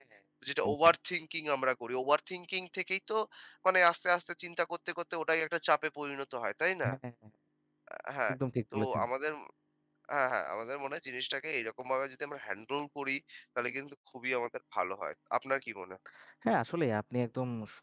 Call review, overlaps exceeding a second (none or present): none